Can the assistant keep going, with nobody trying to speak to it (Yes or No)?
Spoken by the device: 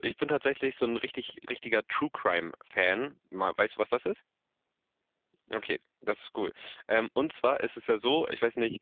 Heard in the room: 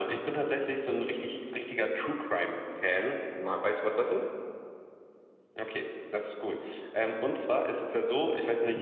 Yes